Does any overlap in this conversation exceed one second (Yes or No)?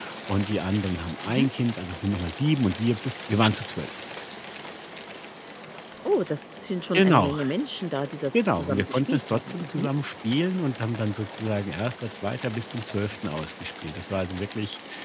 Yes